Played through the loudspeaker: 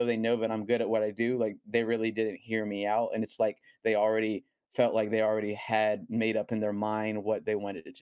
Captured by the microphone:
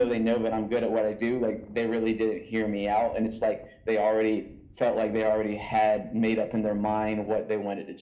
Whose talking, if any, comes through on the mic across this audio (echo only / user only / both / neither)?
echo only